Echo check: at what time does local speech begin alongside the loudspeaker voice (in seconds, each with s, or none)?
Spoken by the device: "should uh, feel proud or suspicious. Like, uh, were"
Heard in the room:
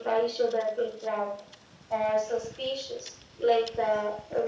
none